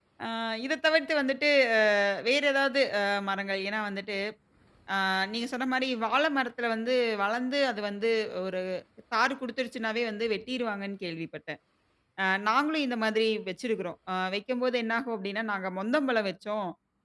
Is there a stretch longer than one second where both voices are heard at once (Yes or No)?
No